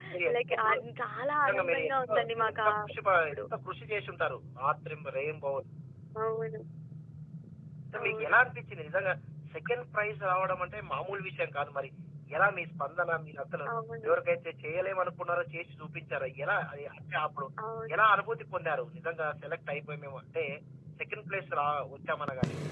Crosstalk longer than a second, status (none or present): present